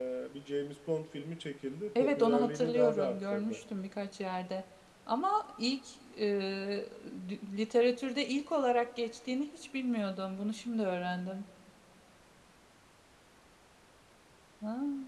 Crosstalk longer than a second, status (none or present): present